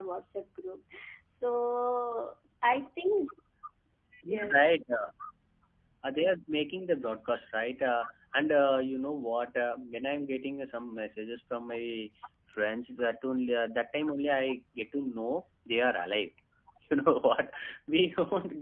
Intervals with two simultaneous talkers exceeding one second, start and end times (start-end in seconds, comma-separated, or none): none